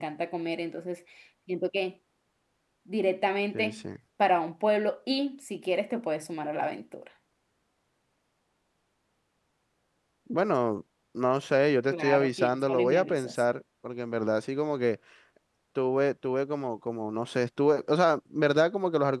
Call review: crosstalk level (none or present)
present